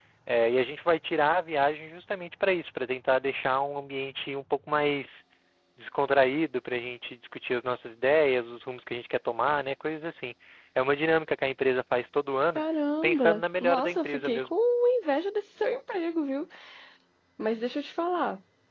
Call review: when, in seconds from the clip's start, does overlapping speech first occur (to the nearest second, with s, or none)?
13 s